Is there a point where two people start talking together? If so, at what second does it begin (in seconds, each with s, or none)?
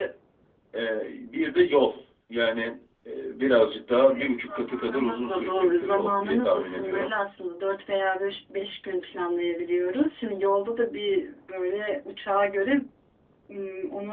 4.0 s